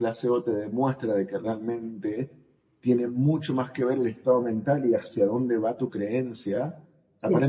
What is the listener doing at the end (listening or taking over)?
listening